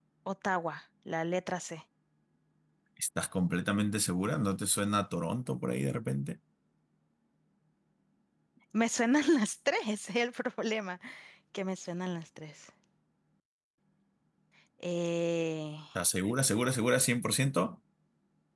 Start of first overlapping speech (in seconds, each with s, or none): none